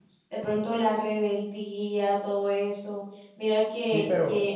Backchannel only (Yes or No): Yes